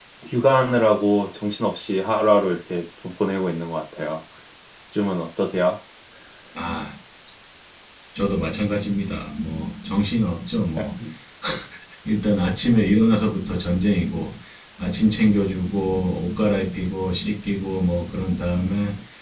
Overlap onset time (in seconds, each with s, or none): none